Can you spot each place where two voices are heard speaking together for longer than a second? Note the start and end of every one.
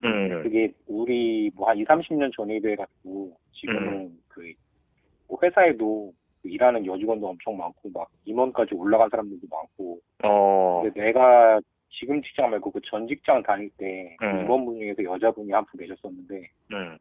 none

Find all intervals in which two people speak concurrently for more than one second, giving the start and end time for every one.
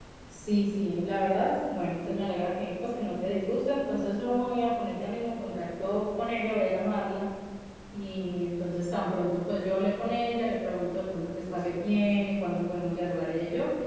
none

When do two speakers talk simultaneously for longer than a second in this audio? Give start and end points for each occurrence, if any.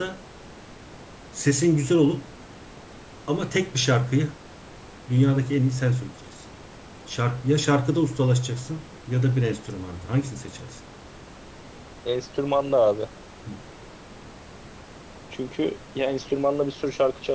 none

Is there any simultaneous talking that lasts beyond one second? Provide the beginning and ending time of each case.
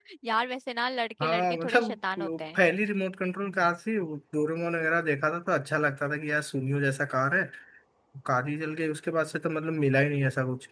1.2-2.6

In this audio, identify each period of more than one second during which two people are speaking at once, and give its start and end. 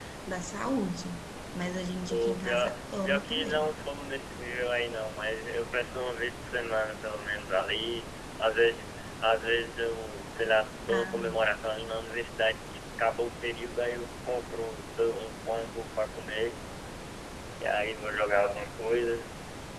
2.1-3.8

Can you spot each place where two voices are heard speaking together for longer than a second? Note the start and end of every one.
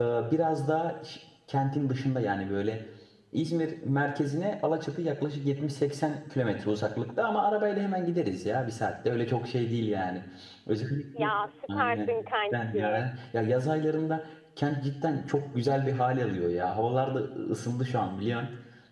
none

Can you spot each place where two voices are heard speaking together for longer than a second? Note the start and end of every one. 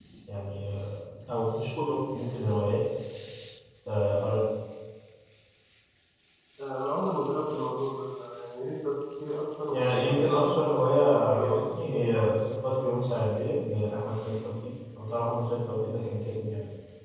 9.7-12.3

